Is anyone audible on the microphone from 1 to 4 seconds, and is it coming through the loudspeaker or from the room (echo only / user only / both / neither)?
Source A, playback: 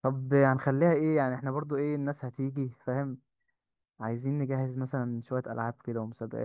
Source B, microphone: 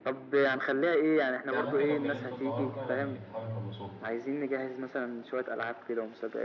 both